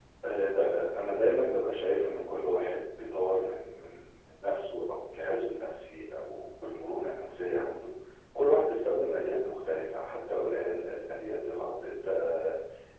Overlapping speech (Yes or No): No